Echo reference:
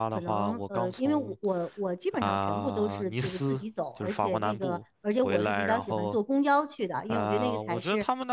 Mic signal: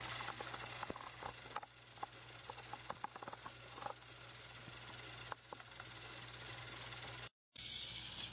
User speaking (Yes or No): No